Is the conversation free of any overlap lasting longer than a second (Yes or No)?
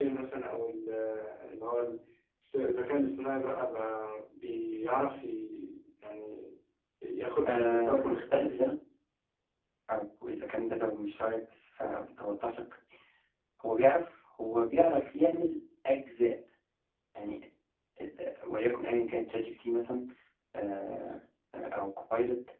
No